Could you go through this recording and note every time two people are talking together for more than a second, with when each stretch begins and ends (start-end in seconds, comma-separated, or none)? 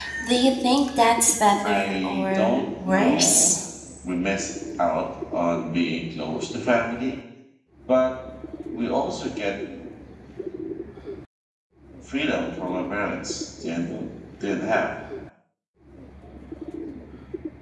1.6-3.6